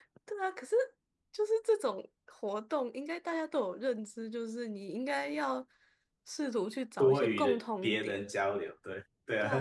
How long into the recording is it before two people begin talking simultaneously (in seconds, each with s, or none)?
7.0 s